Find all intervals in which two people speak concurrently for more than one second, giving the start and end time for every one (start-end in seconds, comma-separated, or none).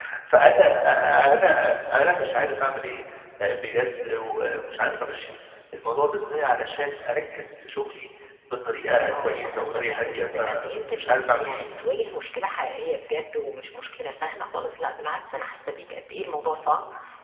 9.1-11.7